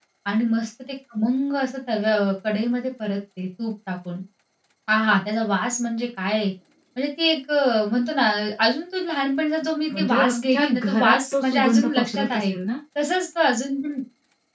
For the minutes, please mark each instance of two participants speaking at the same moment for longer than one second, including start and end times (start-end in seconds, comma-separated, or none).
9.9-12.4